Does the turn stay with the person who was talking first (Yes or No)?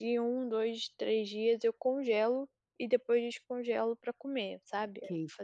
No